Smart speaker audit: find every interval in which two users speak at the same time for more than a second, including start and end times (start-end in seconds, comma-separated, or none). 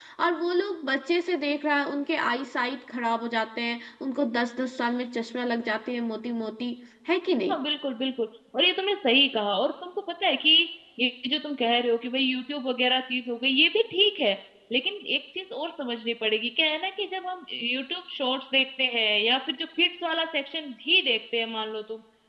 none